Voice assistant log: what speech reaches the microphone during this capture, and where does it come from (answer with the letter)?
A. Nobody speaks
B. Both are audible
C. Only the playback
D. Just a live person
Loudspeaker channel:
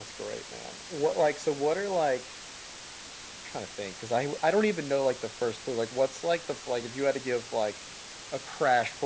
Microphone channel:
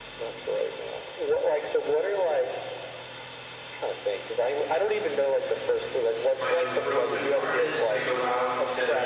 B